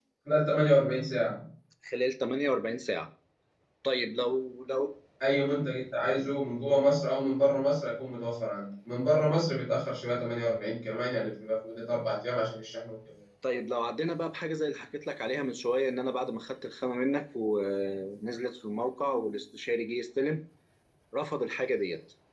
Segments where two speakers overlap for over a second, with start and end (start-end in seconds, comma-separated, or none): none